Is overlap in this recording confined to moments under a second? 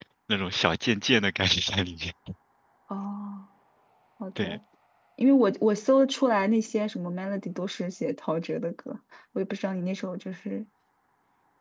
Yes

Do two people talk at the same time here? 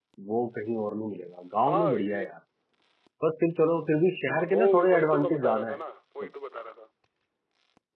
Yes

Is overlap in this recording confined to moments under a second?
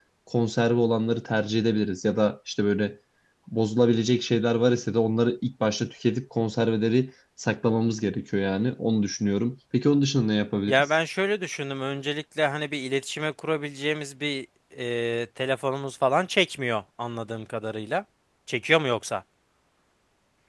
Yes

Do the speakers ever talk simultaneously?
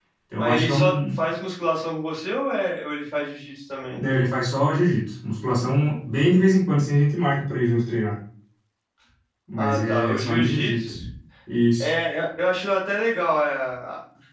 Yes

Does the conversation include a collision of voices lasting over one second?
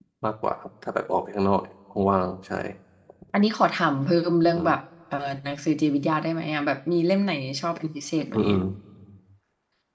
No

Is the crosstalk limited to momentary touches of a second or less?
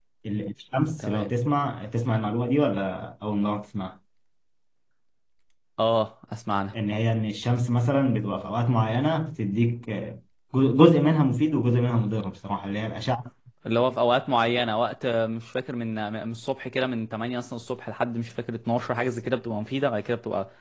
Yes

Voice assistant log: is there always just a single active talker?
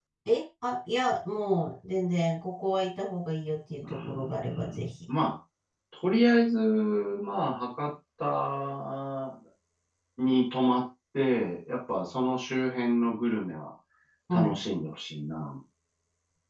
No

